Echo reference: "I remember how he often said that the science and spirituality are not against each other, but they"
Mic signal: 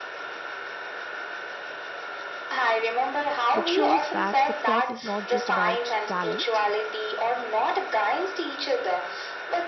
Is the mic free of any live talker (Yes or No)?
No